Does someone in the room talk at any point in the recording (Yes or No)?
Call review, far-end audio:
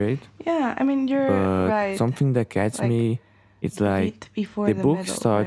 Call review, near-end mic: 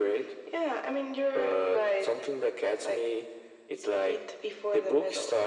No